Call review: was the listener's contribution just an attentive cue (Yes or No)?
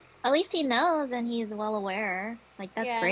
No